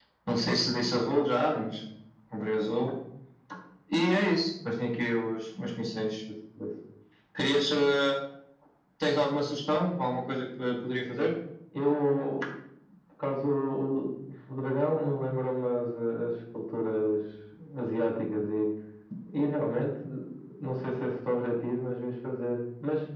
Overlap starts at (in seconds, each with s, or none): none